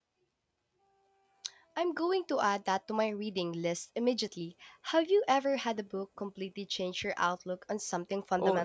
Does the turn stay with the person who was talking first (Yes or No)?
No